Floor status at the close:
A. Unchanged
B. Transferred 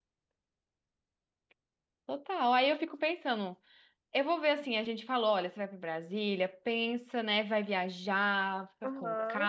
B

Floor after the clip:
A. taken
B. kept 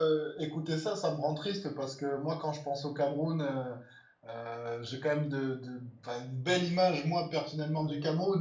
B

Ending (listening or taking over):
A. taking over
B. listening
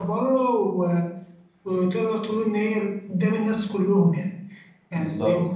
B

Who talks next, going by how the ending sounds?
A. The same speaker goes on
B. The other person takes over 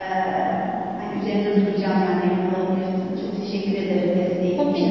B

